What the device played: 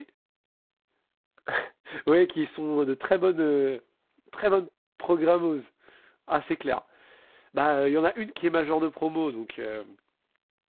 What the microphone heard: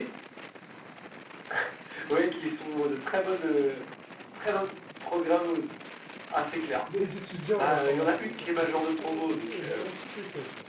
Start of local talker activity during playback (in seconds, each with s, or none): 6.5 s